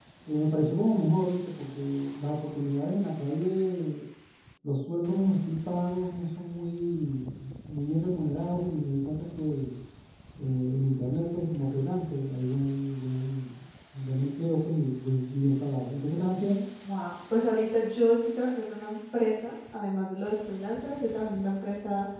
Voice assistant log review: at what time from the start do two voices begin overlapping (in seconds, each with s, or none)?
none